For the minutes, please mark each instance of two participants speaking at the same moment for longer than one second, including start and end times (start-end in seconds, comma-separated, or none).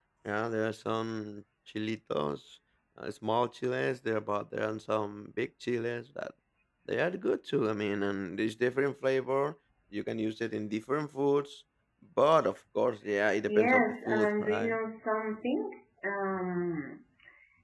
13.5-14.8